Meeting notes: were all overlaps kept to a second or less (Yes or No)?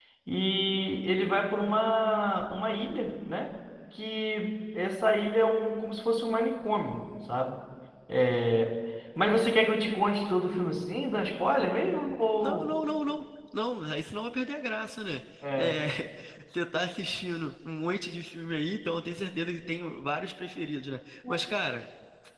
Yes